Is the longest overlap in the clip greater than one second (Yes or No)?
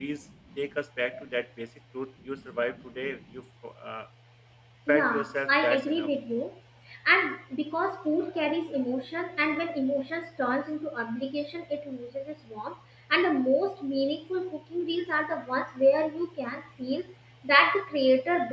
Yes